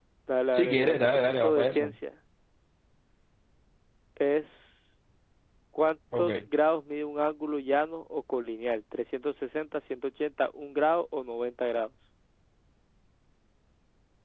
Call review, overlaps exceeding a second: present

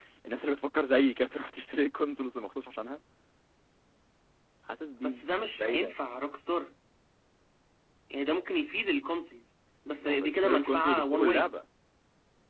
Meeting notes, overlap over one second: present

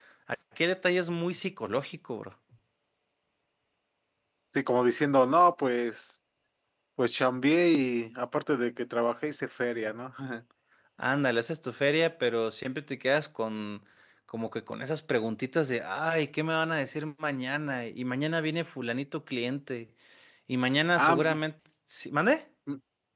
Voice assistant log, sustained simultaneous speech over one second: none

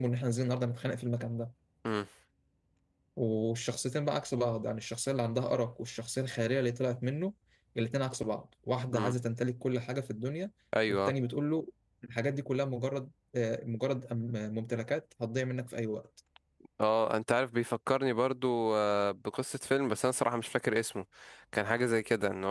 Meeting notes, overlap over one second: none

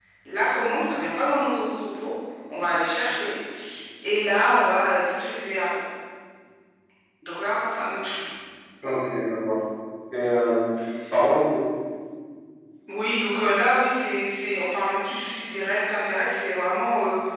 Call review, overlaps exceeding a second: none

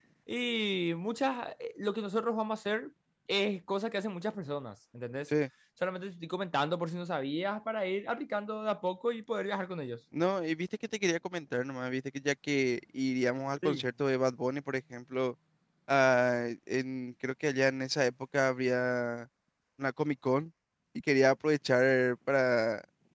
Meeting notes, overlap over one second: none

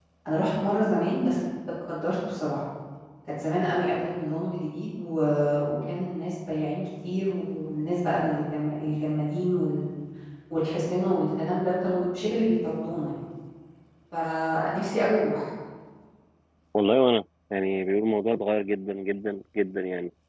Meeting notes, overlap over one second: none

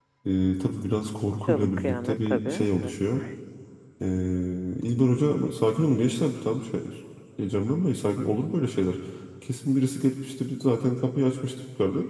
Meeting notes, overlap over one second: present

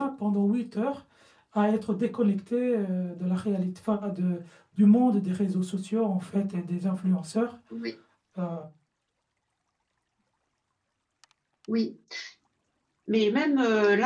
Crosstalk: none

